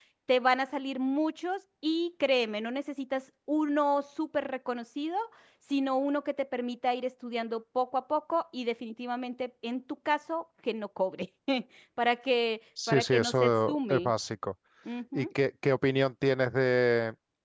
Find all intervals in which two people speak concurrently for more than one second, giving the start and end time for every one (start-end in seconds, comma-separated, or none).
12.9-14.1